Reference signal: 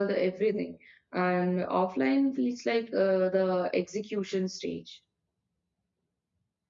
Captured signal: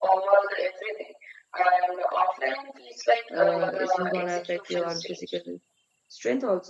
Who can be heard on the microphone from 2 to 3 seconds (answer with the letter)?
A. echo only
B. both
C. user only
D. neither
A